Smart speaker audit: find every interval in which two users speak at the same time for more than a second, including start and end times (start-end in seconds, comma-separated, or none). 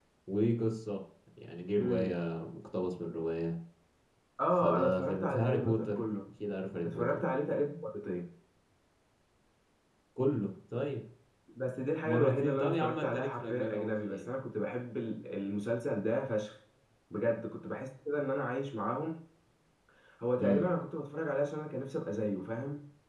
4.5-6.0, 12.0-14.3